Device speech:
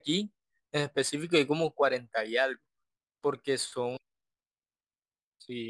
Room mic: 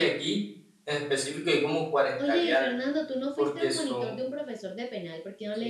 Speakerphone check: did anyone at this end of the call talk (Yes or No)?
Yes